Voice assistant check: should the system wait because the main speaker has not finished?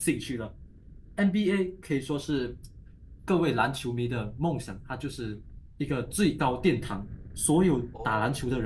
Yes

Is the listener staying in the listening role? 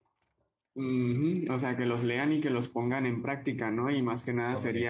Yes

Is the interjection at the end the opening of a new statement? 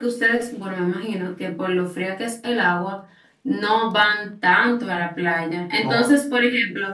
No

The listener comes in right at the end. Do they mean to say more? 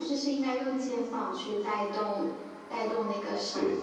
No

